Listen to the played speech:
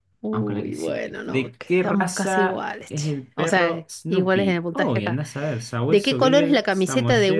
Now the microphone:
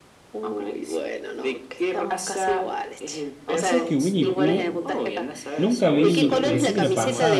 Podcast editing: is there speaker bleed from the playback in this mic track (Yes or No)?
Yes